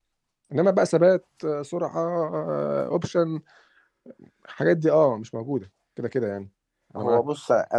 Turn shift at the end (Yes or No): Yes